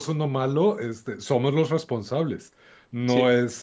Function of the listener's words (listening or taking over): listening